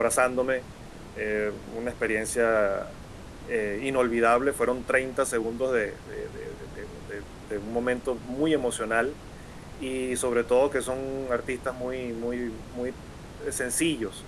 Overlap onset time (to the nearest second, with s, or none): none